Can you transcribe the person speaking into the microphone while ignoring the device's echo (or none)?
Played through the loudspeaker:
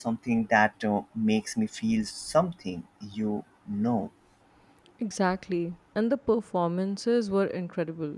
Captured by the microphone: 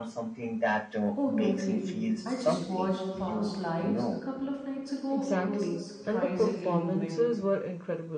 oh totally i just watched past lives a couple of nights ago it was surprisingly moving